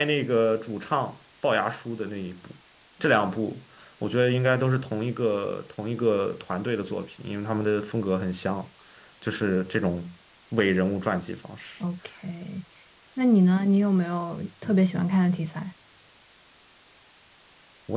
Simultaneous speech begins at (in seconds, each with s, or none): none